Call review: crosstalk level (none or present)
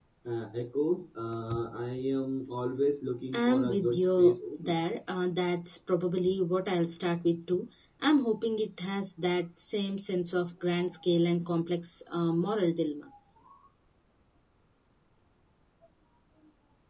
present